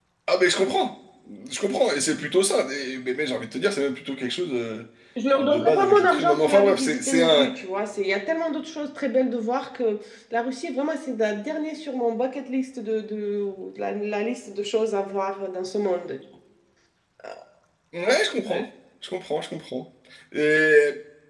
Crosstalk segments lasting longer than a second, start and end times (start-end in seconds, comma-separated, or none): 5.4-7.5